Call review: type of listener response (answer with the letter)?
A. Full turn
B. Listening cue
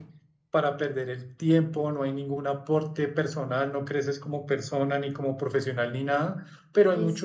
B